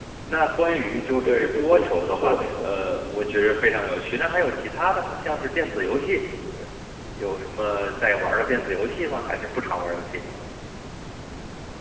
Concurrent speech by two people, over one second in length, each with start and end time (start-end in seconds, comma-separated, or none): 1.2-2.8